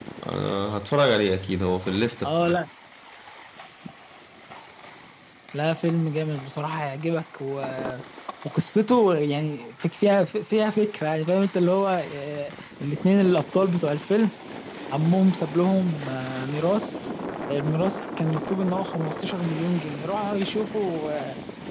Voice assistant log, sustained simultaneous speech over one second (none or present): none